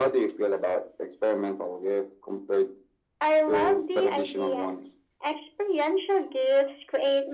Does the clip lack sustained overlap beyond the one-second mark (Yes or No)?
No